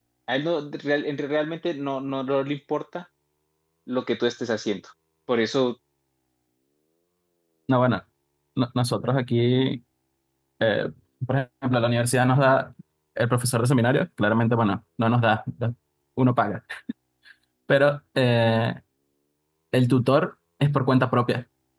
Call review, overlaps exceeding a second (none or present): none